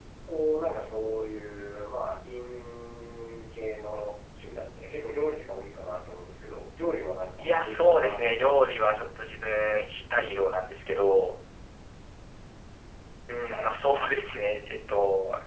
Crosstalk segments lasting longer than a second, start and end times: 7.4-8.7

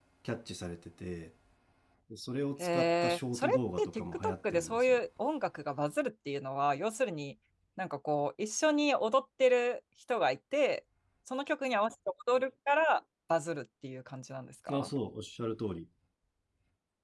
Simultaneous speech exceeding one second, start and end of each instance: 2.6-5.0

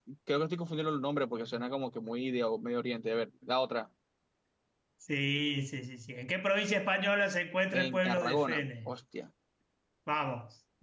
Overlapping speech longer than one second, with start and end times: 7.7-9.0

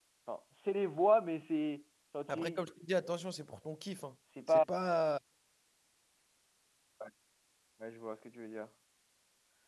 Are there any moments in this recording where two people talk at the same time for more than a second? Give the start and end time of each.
none

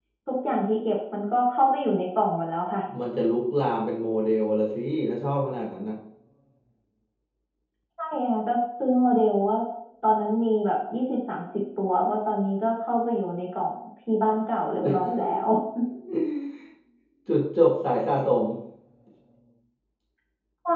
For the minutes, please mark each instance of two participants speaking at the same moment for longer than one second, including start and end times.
none

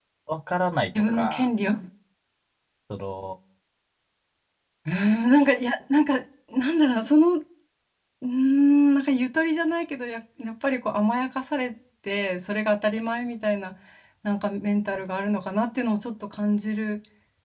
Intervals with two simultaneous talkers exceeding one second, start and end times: none

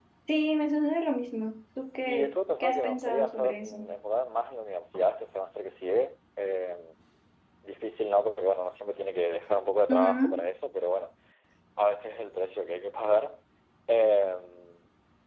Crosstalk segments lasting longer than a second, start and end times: 2.0-3.8

